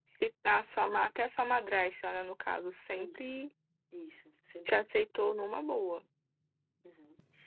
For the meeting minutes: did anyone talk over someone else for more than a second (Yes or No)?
No